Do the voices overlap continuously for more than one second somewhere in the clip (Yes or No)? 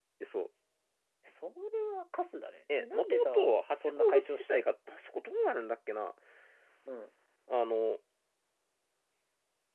Yes